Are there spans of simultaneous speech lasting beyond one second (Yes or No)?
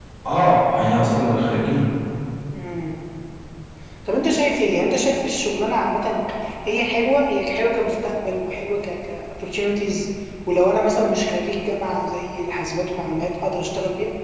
No